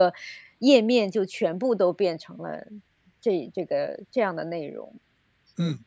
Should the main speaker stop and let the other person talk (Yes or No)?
Yes